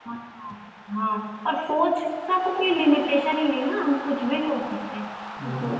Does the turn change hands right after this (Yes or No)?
No